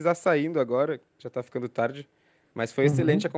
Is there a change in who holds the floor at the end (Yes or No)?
No